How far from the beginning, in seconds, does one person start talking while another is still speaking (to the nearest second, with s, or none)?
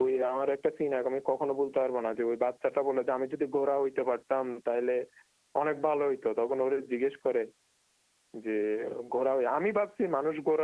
none